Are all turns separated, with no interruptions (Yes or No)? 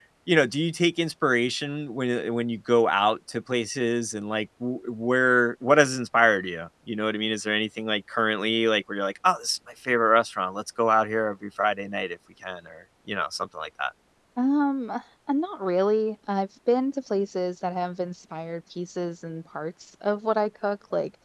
Yes